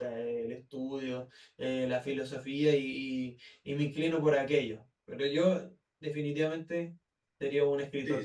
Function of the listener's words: taking over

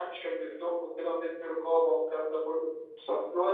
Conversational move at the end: listening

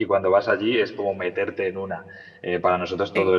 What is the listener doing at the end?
listening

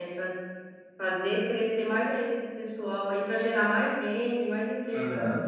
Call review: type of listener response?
taking over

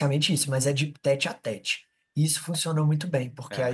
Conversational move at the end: listening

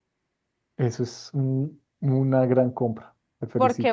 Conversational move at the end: taking over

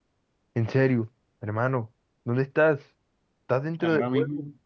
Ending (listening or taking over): taking over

